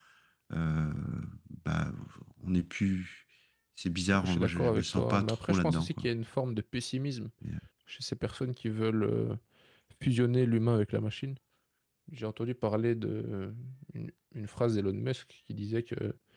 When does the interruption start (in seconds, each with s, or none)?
4.1 s